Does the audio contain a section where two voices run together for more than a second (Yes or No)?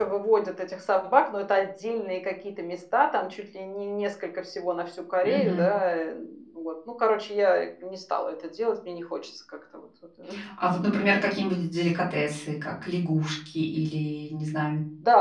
No